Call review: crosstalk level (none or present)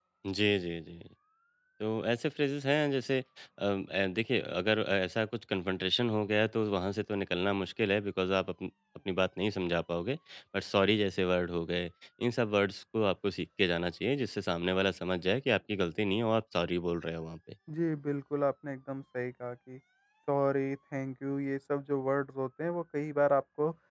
none